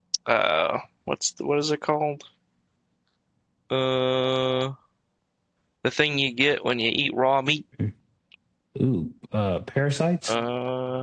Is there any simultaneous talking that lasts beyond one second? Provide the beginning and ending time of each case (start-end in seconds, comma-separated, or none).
none